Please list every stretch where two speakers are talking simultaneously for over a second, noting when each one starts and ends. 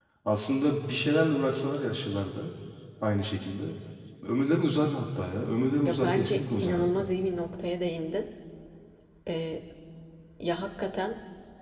5.8-7.1

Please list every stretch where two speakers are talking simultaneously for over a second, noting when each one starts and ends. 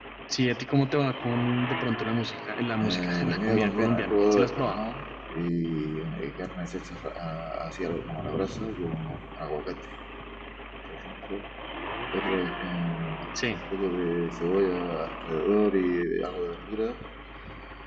2.8-4.8

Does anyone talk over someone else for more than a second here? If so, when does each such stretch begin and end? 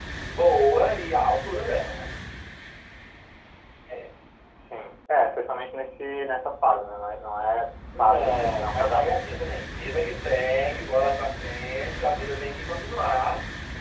8.0-9.4

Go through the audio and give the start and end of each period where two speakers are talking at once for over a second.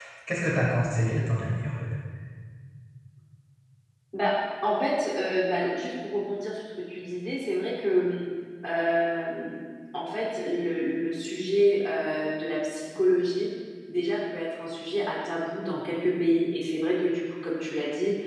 none

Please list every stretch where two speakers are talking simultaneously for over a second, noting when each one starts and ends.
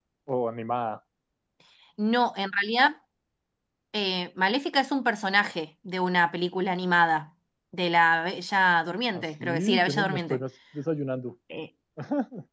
9.1-10.4

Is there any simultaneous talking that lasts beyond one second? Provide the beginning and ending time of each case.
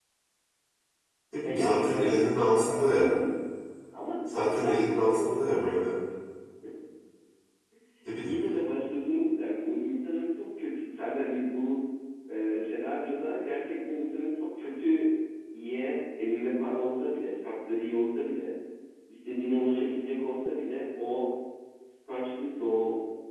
1.4-3.2, 4.3-6.0

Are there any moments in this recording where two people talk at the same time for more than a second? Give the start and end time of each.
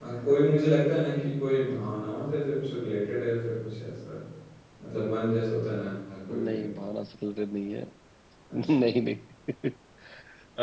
none

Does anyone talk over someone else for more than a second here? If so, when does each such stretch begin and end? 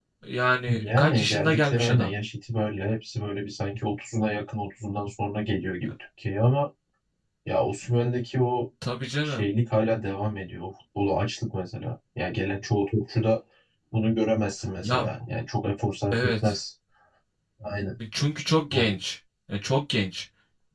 0.7-2.1

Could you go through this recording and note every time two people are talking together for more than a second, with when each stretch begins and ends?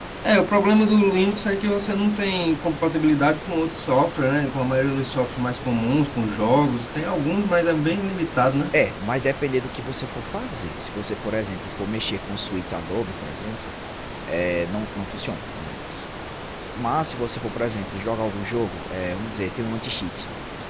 none

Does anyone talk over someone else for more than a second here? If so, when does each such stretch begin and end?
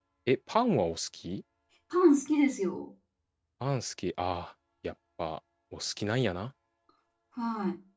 none

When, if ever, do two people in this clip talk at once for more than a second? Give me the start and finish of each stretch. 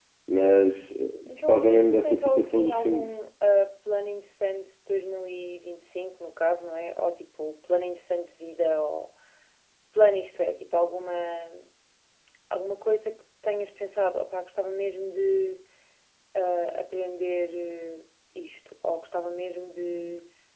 1.3-3.1

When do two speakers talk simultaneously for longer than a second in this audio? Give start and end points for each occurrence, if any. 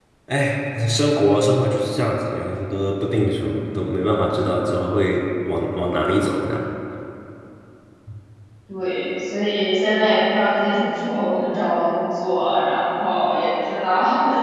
none

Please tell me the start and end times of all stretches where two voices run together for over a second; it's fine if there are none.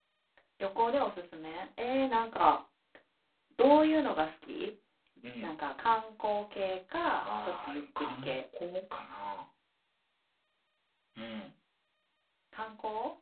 7.2-8.4

